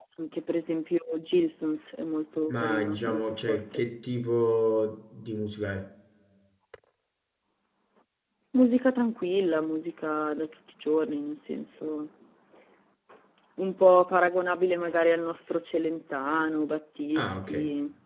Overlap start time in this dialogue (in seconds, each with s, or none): 2.5 s